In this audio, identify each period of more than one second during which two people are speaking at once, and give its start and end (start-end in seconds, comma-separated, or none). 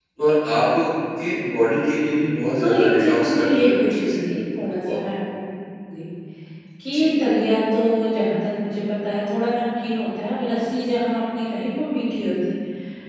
2.6-4.2